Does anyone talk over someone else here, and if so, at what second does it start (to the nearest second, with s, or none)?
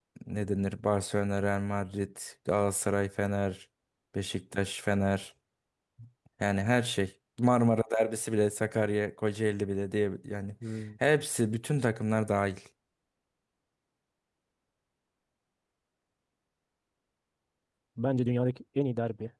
none